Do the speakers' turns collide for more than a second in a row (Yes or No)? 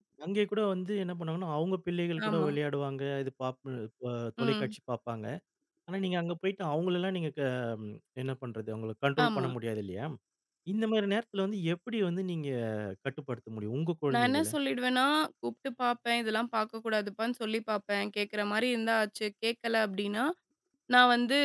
No